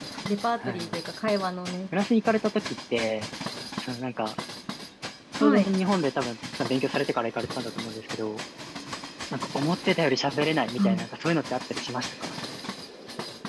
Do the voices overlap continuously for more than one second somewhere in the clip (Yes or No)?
No